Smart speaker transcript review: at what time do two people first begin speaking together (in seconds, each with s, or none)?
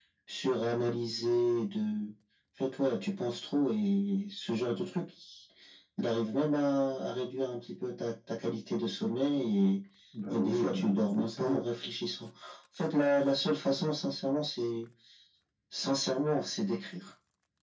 10.3 s